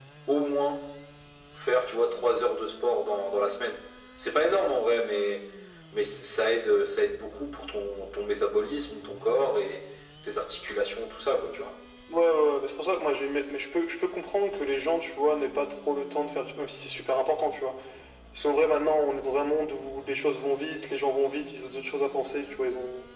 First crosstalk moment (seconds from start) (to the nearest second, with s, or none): none